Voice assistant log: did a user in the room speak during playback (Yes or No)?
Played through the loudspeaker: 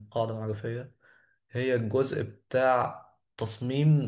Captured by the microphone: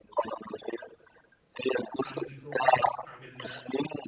Yes